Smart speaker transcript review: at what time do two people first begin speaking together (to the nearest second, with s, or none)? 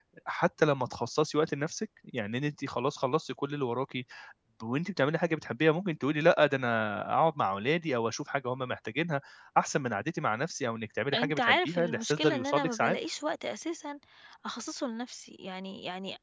11 s